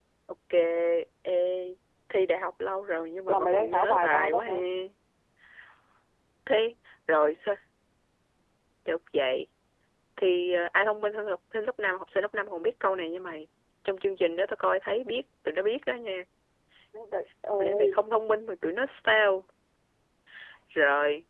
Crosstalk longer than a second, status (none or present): present